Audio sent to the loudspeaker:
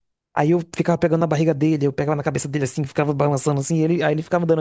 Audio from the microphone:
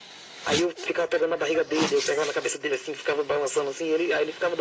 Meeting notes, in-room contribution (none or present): none